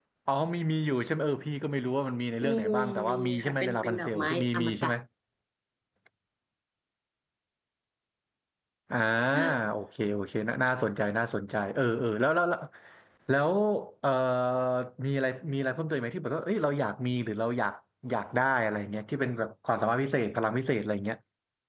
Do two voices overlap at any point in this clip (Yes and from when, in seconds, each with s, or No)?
Yes, from 2.5 s